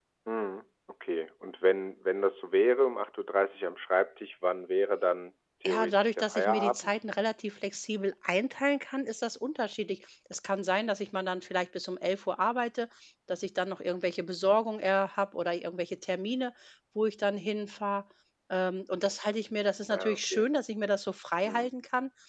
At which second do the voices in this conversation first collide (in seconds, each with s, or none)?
5.6 s